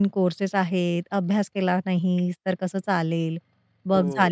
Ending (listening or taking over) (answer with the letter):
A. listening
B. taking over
B